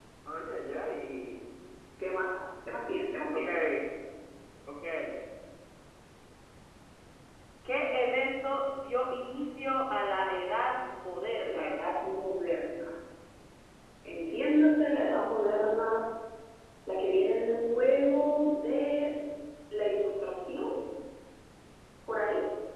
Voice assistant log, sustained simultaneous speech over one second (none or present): none